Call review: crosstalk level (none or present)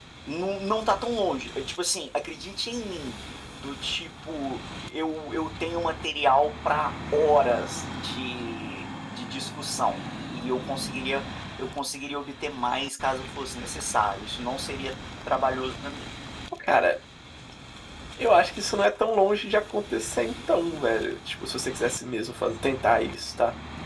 none